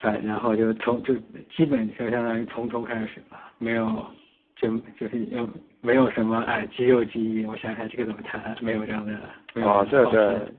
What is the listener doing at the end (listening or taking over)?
taking over